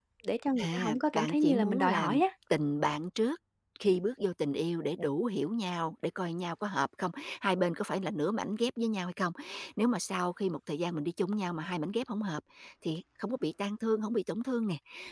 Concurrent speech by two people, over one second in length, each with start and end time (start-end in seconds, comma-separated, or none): 0.6-2.2